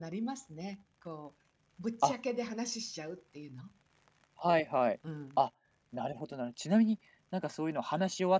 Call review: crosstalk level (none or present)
none